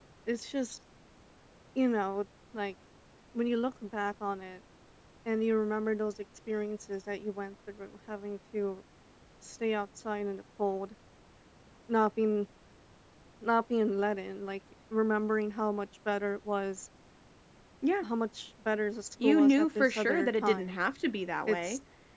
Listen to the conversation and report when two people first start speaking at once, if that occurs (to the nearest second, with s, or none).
19 s